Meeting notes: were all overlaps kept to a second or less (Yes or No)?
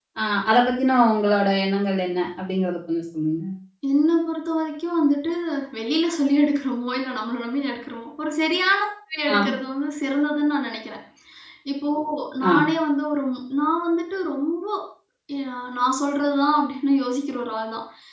Yes